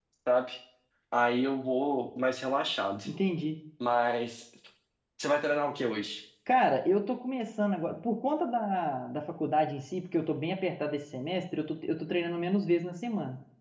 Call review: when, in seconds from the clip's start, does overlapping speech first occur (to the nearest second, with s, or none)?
none